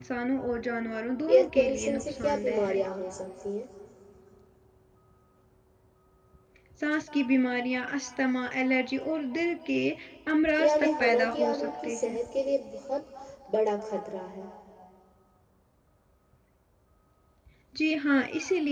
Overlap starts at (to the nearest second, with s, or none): 1 s